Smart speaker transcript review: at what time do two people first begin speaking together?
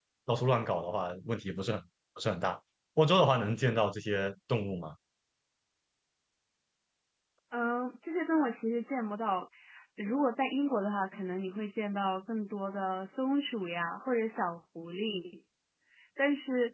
none

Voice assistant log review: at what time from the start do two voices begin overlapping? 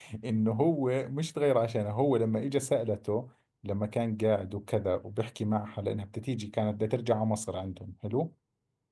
none

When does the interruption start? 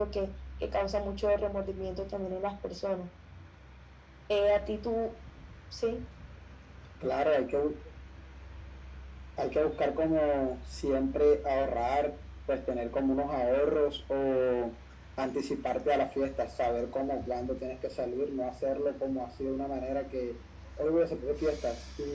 none

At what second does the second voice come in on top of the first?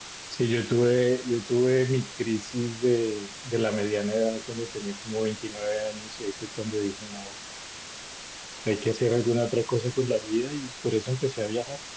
none

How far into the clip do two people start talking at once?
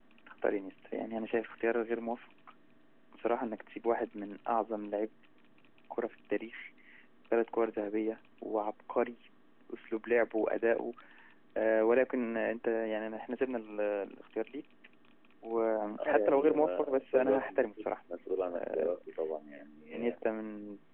16 s

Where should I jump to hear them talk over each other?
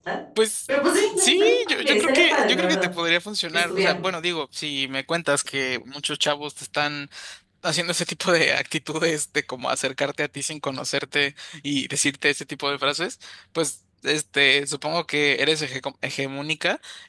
1 s

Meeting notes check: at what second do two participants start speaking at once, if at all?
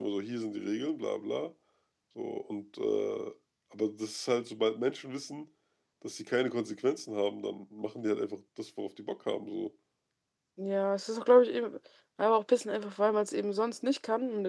none

